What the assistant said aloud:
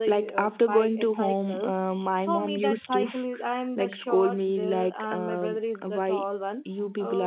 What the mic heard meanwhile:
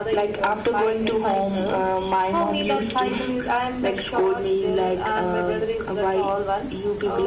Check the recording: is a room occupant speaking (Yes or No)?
No